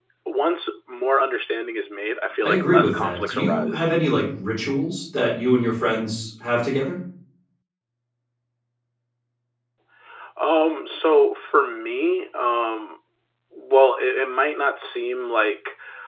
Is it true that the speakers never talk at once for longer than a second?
No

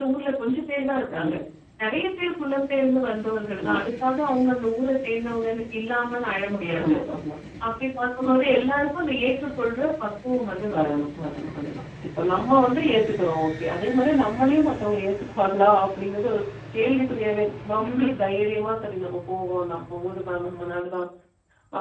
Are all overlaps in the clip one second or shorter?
Yes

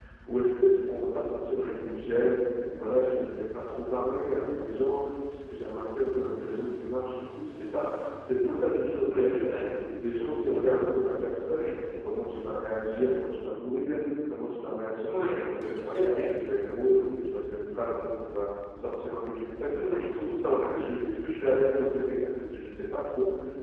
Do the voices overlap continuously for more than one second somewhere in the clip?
No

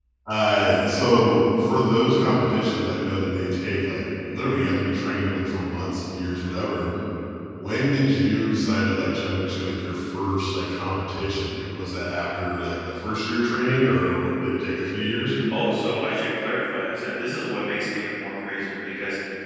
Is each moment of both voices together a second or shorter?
Yes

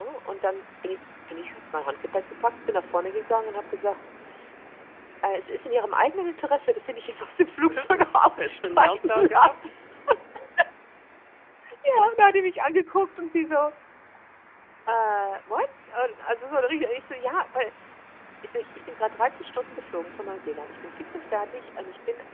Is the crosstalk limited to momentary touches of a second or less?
No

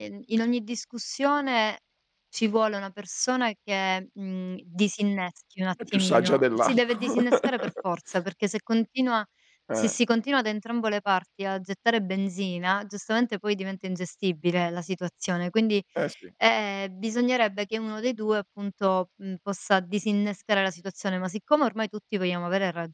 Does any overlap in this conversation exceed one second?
Yes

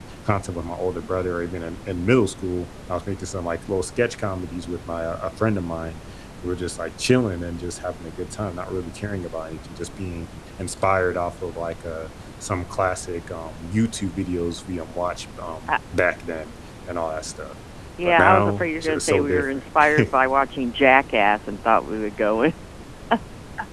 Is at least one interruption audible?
Yes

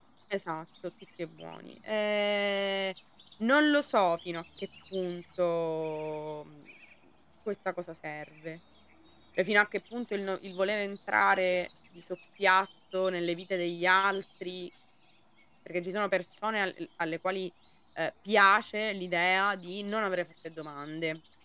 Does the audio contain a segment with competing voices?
No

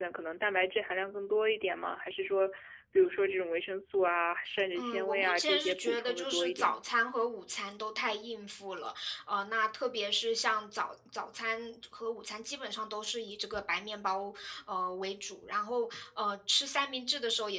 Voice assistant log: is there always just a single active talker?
No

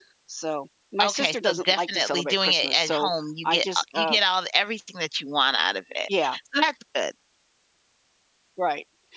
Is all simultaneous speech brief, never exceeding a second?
No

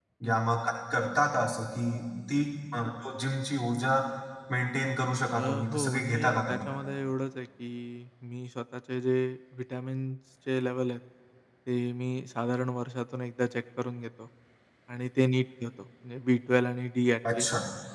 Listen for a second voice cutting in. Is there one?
Yes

